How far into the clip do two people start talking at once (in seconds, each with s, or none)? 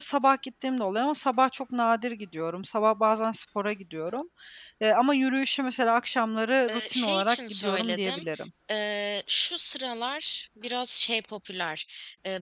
6.7 s